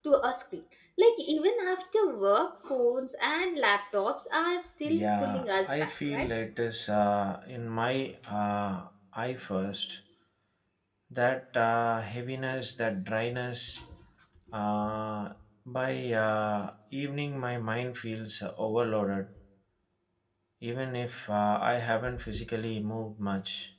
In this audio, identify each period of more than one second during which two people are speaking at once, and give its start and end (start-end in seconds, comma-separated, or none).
4.8-6.3